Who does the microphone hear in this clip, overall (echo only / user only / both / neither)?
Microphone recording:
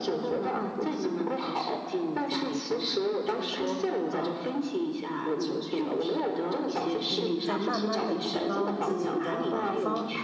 both